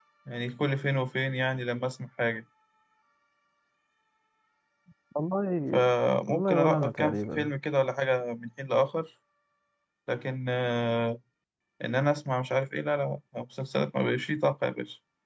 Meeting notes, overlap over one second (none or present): present